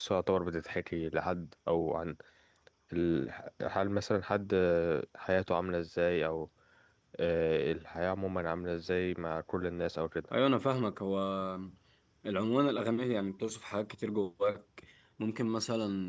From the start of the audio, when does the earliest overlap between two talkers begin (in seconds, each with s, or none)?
none